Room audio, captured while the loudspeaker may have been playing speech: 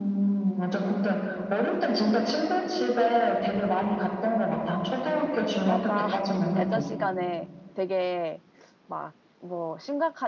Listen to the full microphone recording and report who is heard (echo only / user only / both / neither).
both